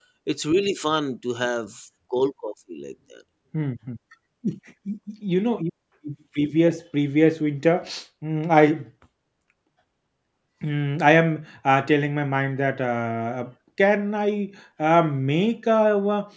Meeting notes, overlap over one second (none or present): none